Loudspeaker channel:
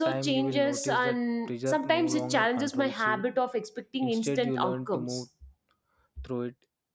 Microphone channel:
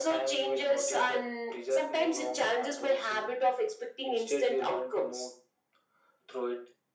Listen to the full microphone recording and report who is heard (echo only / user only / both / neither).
echo only